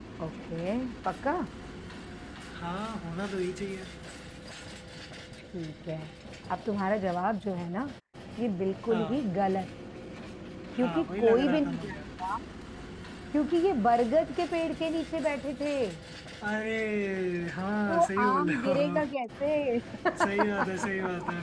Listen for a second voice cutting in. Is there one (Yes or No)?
Yes